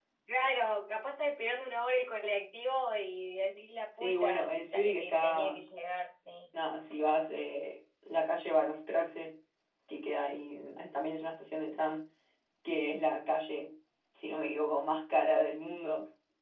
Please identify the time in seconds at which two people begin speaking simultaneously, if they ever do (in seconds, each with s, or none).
4.0 s